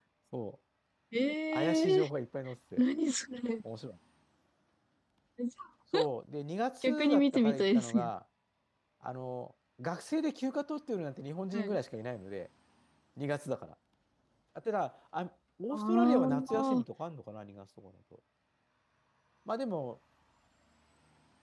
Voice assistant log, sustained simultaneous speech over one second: present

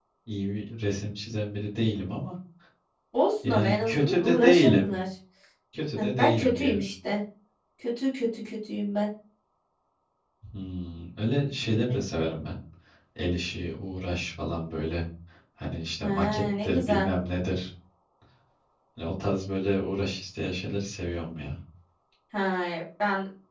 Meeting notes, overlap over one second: present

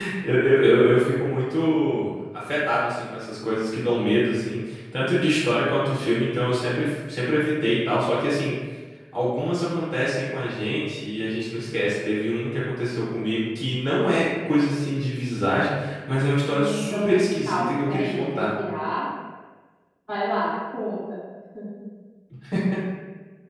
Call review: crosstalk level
present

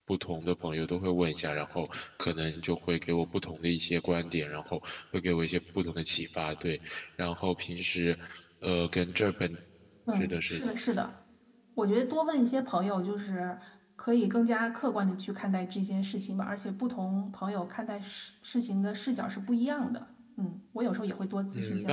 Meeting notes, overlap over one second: none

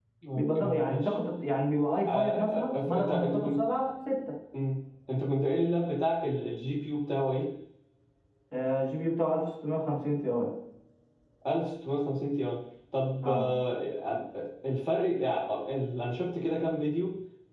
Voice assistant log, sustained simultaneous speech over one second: present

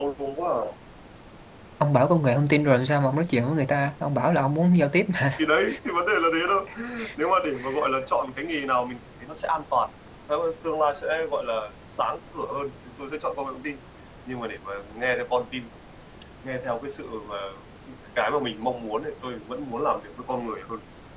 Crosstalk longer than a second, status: none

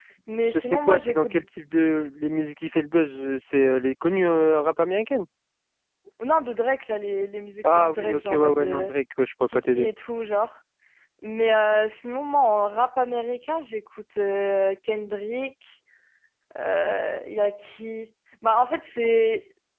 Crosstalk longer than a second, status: present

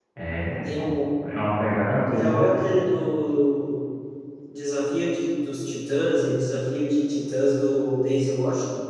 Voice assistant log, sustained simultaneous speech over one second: none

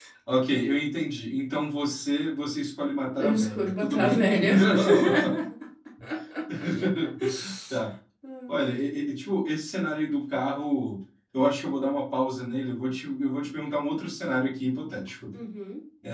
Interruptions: present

